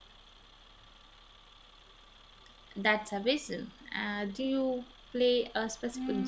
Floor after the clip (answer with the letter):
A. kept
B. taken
B